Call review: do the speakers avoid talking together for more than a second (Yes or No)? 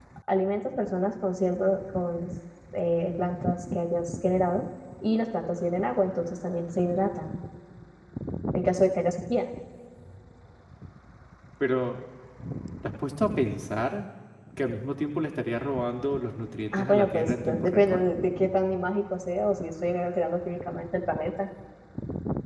No